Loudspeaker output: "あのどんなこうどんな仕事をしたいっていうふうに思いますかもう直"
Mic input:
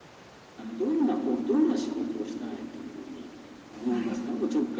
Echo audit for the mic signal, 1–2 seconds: echo only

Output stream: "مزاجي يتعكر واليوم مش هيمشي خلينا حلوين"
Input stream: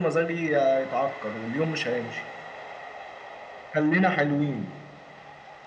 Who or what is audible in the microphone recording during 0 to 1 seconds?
echo only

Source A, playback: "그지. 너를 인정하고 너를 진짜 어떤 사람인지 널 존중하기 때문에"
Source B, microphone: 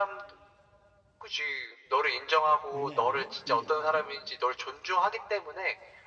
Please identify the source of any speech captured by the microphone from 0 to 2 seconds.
echo only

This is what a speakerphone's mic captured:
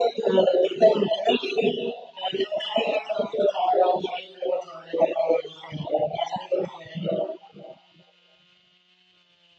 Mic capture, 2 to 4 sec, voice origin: echo only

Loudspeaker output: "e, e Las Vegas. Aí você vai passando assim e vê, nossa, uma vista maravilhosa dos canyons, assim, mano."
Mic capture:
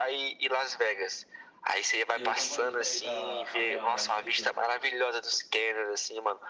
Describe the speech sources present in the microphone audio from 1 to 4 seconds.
both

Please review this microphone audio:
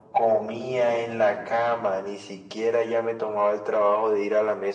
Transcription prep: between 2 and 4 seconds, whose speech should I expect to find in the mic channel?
echo only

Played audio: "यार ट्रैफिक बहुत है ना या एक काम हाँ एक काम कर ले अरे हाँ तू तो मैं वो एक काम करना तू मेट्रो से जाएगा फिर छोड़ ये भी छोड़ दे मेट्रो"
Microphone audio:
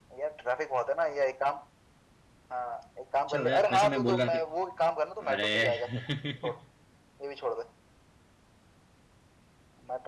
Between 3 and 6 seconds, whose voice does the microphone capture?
both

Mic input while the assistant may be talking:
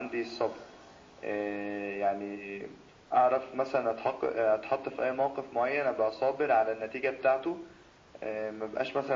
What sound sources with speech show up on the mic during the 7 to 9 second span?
echo only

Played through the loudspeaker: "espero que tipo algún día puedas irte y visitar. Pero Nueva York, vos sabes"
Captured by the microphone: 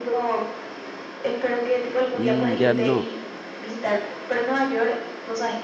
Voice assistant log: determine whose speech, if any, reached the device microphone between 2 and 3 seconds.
both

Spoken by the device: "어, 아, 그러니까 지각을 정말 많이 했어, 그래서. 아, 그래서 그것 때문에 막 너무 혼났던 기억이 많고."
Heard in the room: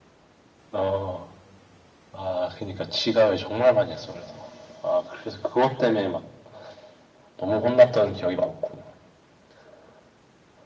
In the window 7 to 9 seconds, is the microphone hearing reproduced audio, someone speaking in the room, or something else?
echo only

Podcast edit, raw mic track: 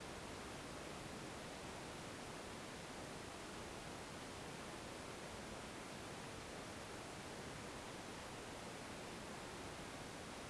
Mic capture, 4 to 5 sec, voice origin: neither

